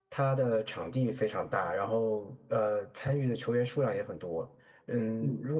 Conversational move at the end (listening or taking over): listening